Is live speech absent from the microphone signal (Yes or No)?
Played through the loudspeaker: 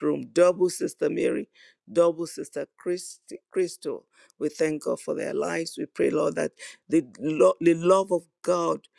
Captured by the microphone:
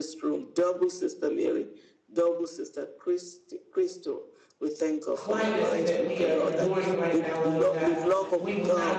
No